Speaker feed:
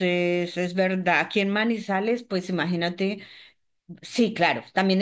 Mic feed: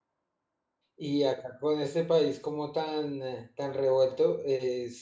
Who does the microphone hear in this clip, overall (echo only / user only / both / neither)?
user only